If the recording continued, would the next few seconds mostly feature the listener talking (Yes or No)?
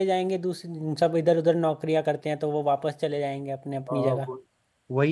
Yes